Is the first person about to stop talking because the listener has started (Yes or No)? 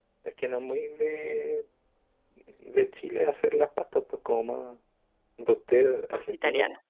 No